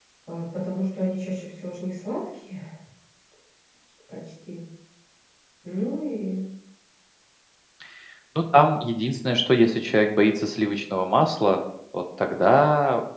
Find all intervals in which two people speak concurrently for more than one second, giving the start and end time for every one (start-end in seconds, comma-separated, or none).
none